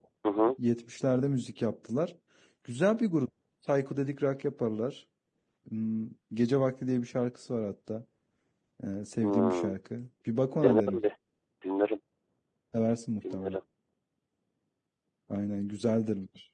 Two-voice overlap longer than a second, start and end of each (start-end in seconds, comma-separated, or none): none